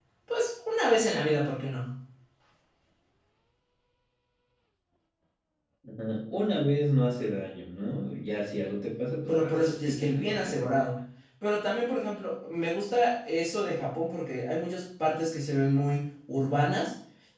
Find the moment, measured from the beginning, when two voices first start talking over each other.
9.3 s

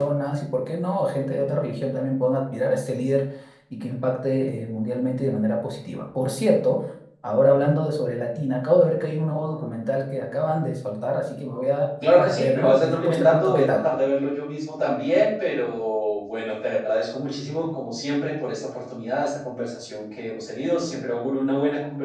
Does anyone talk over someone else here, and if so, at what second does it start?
11.9 s

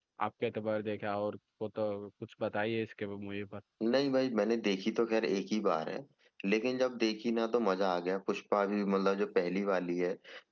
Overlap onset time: none

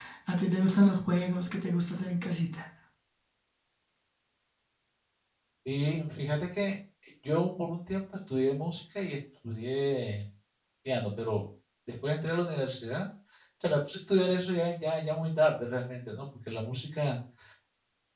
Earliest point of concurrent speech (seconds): none

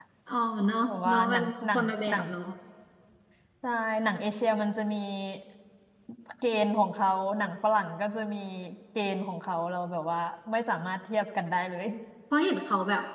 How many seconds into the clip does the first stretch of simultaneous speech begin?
0.9 s

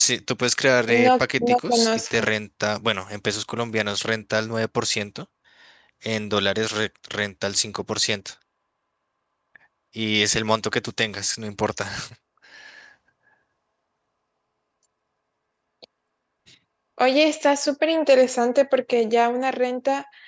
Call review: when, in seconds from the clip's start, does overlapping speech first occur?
0.9 s

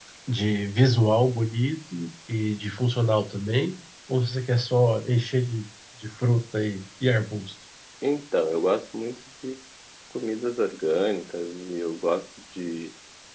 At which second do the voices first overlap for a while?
none

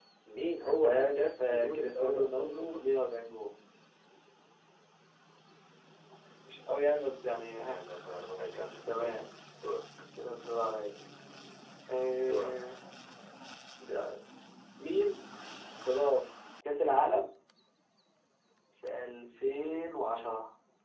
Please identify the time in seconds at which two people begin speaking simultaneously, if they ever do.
0.7 s

